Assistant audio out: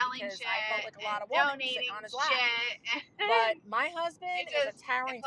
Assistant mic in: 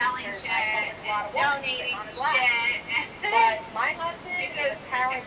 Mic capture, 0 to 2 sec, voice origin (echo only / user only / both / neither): echo only